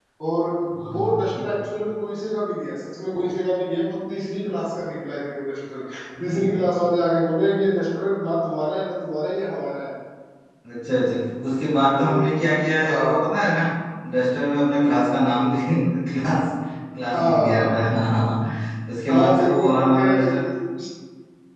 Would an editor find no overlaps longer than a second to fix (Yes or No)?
No